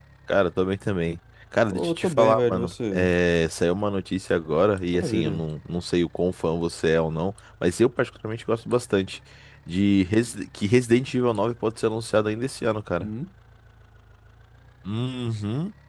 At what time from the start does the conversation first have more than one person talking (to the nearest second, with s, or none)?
2 s